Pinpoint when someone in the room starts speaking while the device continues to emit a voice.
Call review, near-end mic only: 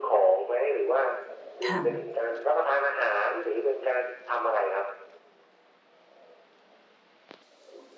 1.6 s

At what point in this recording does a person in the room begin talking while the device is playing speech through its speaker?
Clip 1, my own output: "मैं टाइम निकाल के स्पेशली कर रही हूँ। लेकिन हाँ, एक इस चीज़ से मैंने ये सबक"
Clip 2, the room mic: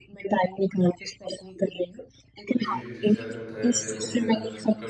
2.5 s

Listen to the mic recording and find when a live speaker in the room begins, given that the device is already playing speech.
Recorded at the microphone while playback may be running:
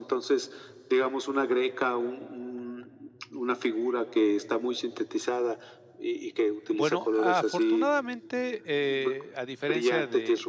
6.7 s

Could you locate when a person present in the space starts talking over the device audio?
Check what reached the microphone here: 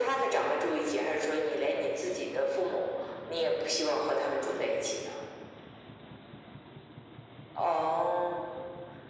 none

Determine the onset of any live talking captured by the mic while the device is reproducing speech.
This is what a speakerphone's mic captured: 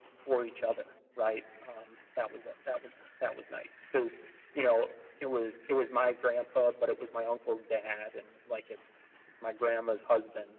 none

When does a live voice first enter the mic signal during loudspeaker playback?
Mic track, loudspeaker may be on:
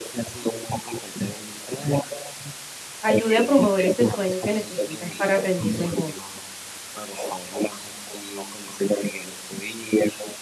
3.1 s

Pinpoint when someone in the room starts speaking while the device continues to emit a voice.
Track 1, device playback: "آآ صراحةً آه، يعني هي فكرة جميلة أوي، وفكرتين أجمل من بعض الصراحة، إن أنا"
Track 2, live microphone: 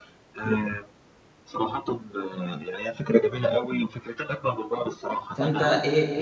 5.3 s

